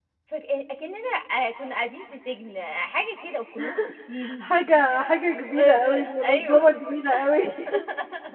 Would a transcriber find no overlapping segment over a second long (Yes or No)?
No